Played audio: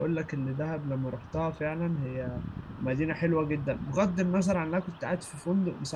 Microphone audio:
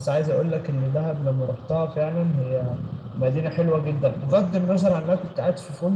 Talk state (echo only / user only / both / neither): echo only